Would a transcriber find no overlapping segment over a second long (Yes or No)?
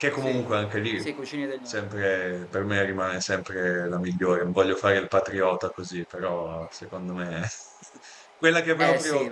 Yes